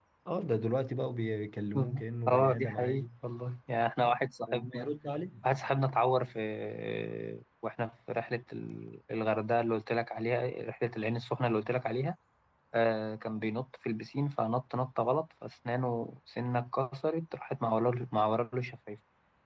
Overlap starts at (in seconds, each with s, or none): 1.8 s